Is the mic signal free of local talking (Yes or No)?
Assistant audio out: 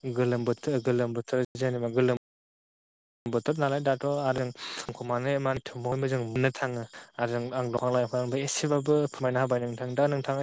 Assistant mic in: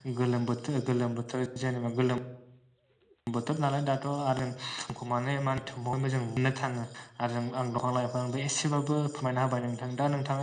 Yes